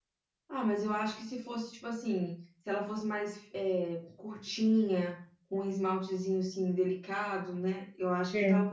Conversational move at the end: listening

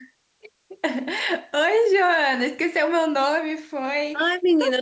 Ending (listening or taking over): taking over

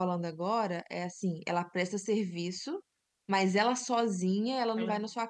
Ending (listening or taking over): listening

